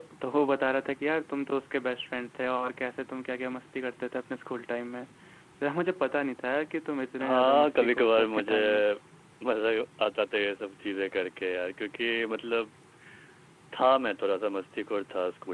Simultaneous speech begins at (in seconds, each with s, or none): 7.2 s